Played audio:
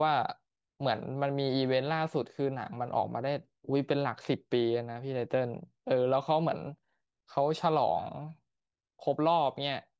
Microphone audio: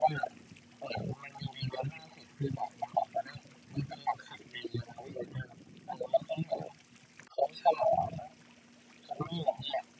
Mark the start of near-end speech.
none

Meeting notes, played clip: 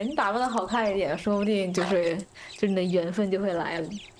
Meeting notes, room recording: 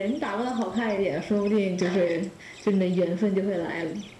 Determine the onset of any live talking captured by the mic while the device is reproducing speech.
none

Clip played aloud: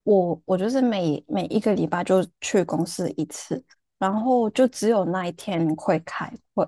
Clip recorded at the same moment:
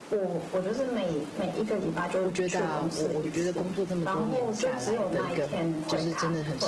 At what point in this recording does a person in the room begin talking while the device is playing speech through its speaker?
2.2 s

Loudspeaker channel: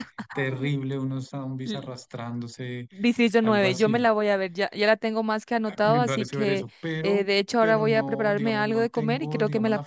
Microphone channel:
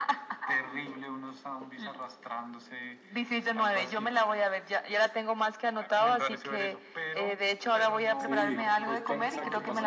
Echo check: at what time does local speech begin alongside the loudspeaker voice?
8.2 s

